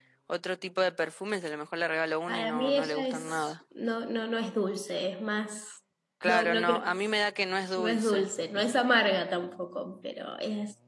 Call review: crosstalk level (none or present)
present